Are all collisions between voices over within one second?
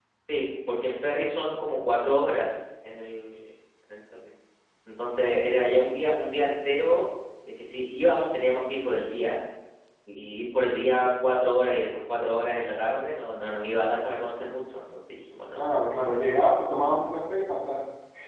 Yes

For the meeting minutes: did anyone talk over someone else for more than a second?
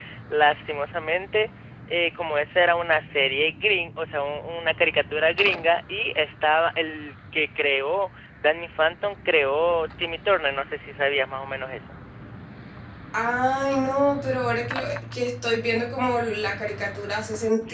No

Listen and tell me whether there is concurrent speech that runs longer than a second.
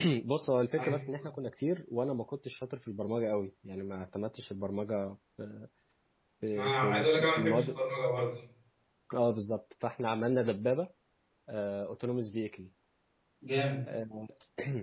Yes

